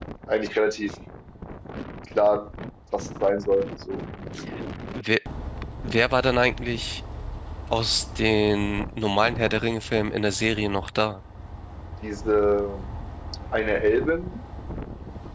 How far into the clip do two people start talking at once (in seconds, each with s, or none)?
none